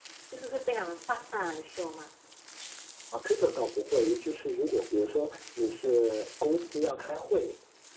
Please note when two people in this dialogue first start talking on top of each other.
none

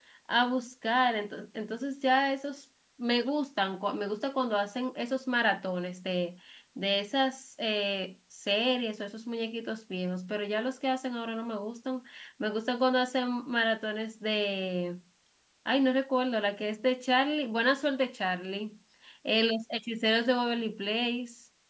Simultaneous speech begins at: none

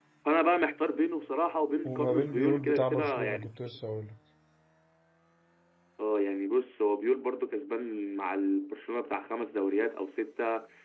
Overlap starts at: 2 s

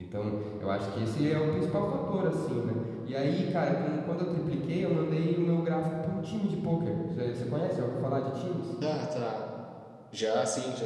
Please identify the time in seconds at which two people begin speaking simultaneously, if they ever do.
none

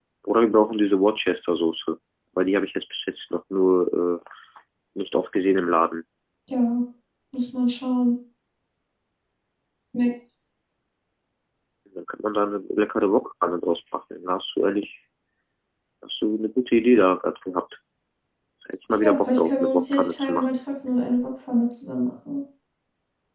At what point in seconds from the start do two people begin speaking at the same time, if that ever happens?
19 s

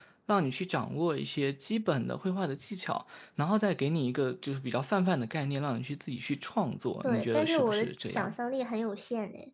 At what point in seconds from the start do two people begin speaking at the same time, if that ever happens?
7 s

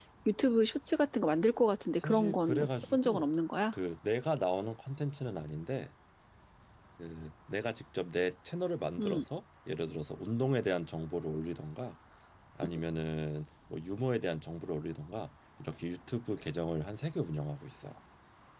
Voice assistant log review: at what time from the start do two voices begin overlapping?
2 s

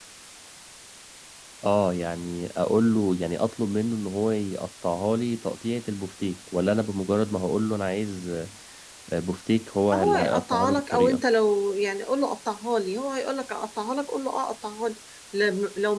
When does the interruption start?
10 s

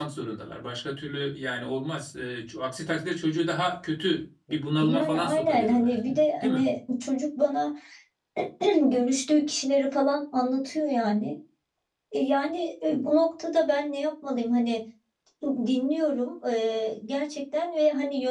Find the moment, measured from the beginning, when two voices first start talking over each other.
5 s

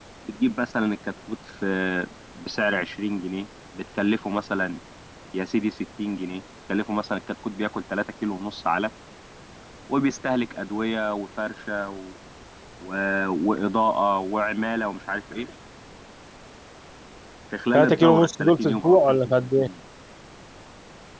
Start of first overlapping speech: 18 s

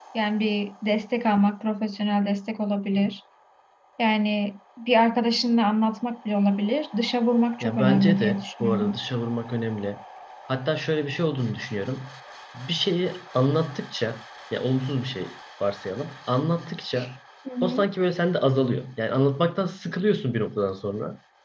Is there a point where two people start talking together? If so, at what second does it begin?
8 s

